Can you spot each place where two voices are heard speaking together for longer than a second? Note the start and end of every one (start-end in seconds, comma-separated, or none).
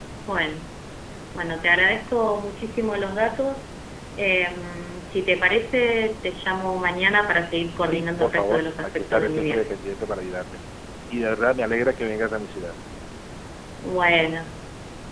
7.9-9.7